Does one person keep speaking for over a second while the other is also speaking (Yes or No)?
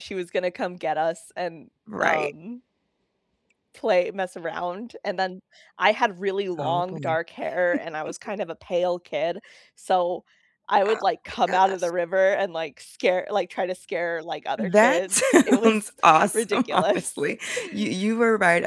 Yes